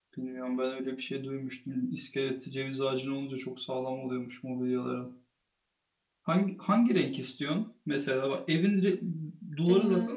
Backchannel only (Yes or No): Yes